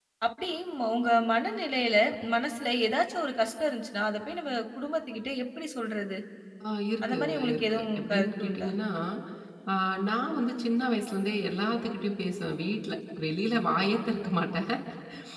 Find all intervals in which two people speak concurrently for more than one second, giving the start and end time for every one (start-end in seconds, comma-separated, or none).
7.1-8.7